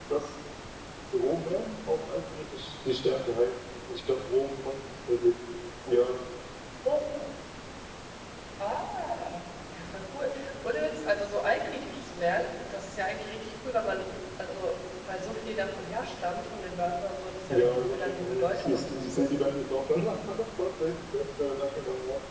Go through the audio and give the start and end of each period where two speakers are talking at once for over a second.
17.5-19.6

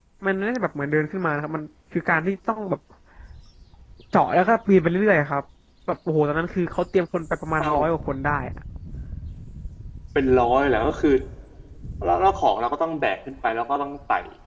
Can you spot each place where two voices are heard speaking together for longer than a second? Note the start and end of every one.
none

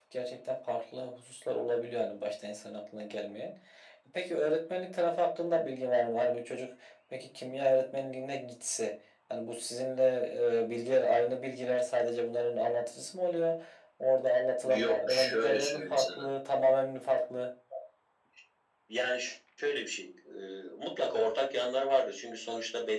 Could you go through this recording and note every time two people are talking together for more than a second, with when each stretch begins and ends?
14.8-16.3

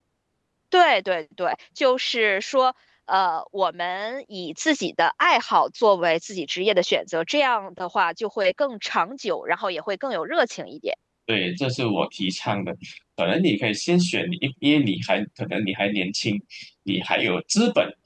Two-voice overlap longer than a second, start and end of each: none

